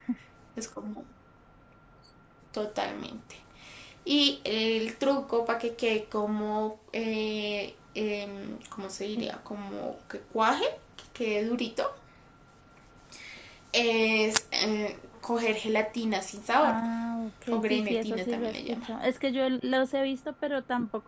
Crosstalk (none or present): present